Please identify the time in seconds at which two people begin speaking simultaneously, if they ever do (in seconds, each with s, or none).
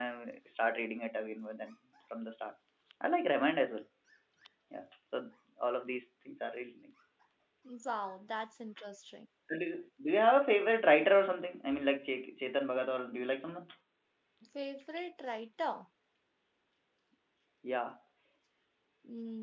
none